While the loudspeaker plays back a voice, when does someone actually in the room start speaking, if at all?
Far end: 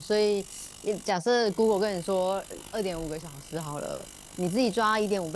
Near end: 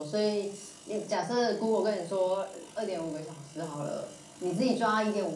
none

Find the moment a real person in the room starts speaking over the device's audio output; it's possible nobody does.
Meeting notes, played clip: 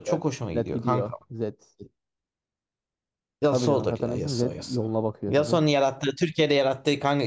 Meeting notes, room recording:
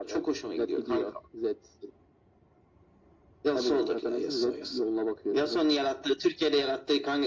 none

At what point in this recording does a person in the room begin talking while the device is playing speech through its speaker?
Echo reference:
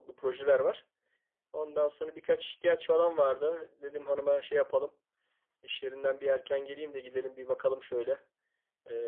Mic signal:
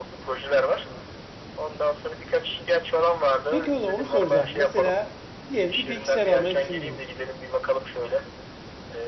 3.5 s

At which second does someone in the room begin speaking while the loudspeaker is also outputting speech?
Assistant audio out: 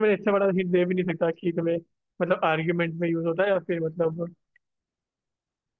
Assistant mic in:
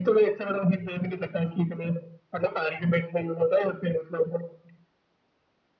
none

